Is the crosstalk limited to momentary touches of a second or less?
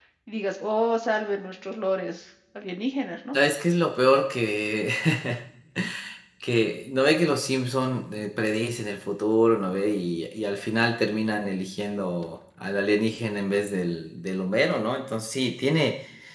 Yes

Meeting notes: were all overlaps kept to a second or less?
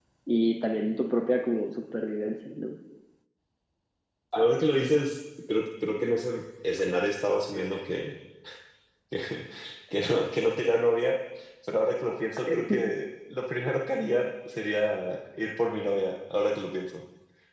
Yes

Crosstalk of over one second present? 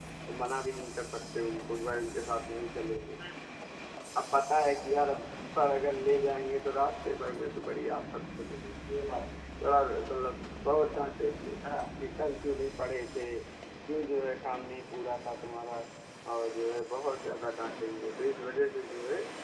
No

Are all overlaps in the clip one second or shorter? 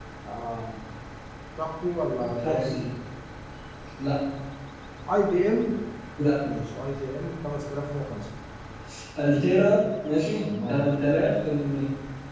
Yes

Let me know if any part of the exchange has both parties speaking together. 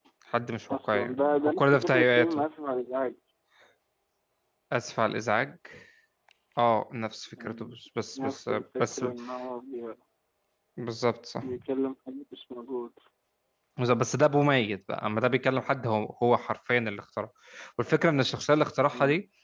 Yes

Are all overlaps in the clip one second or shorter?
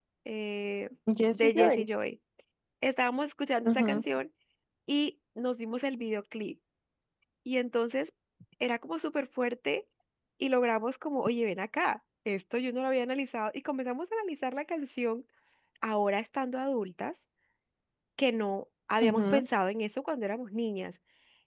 Yes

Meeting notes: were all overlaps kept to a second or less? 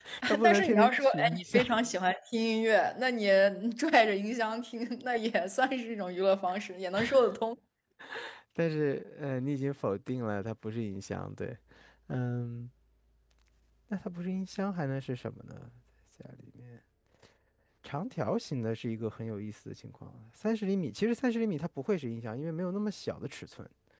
No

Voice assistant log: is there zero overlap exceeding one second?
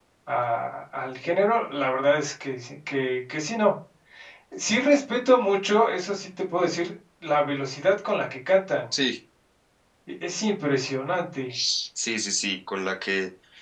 Yes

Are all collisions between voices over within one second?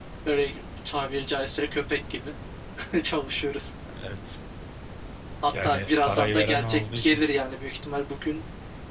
No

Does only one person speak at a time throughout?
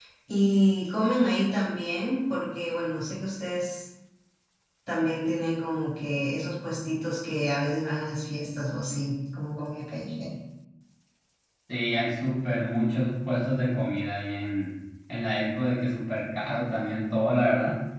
Yes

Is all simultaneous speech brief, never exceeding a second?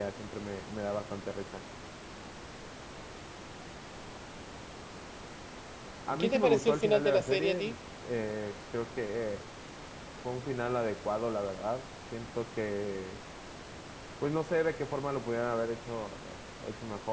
No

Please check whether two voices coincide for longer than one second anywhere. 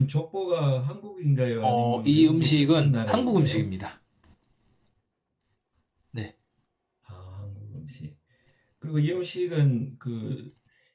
Yes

